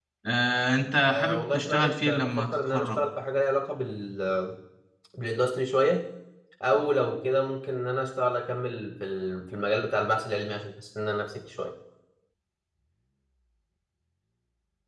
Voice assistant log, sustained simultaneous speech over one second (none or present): present